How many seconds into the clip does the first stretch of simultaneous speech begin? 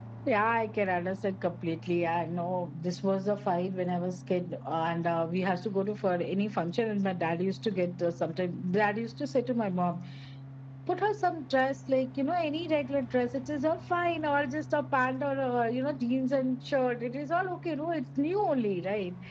none

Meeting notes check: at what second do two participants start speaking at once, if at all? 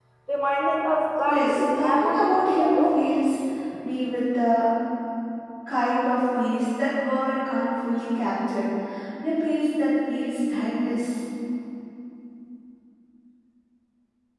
1.3 s

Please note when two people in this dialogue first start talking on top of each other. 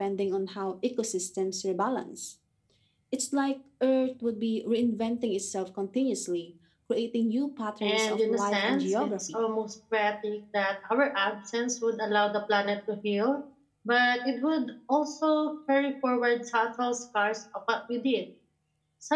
7.8 s

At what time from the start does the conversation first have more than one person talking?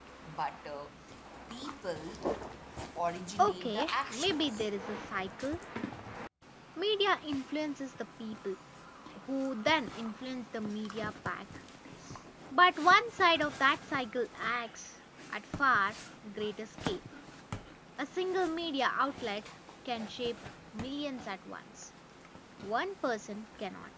3.4 s

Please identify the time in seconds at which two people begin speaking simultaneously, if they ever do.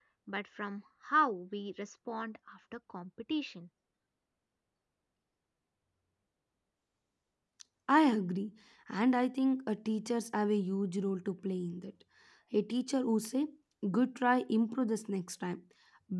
none

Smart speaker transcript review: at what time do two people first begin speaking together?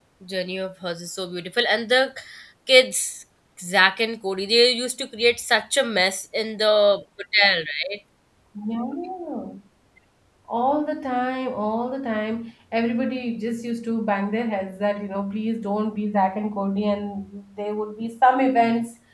none

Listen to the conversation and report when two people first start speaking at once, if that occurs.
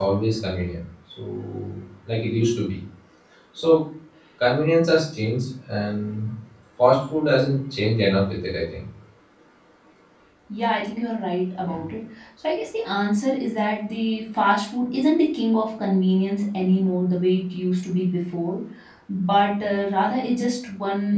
none

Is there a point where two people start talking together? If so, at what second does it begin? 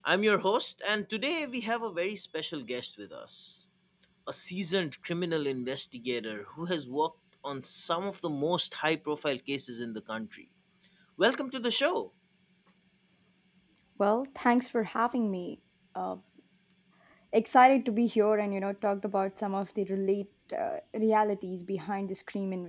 none

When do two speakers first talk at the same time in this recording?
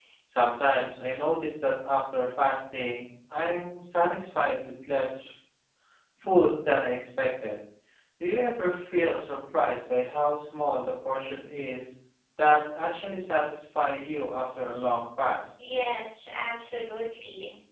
none

